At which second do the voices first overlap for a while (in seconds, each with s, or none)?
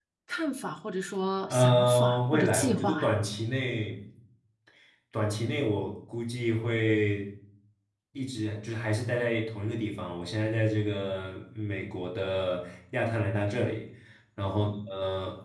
1.5 s